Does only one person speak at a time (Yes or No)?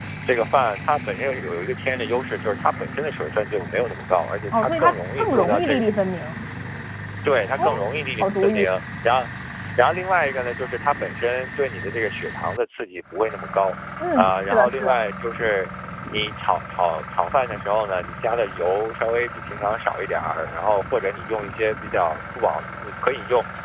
No